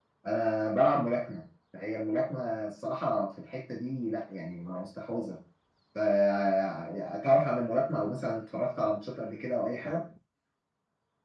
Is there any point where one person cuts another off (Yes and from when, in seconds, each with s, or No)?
No